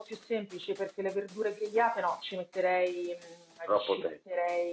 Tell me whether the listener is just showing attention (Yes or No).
Yes